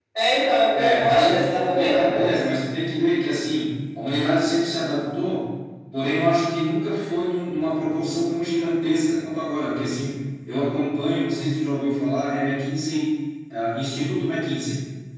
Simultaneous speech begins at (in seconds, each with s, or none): 0.7 s